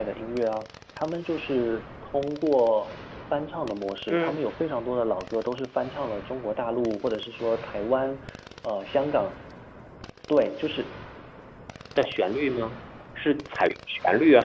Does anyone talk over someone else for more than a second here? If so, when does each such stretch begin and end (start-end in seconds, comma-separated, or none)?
none